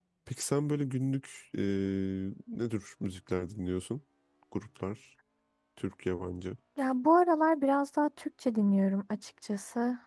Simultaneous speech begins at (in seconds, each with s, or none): none